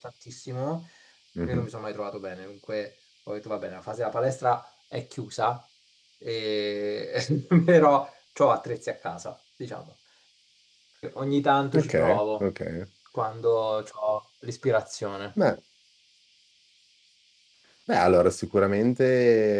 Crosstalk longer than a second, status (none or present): none